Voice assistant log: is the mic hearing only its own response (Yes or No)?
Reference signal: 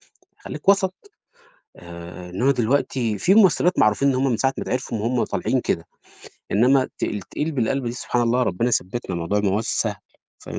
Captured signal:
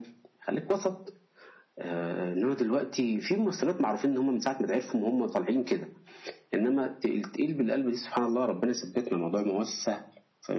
Yes